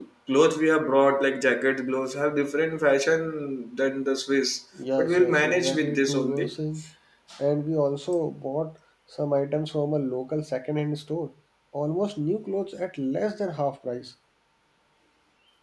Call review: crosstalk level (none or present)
present